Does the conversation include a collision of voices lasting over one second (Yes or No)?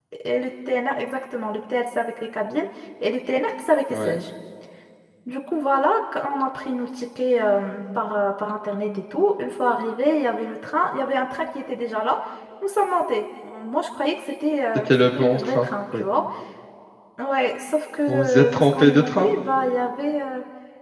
Yes